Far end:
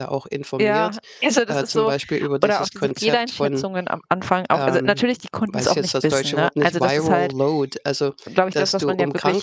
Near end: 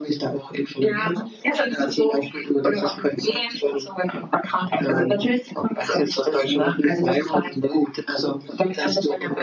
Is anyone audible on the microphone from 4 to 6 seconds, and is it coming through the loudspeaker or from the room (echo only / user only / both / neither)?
echo only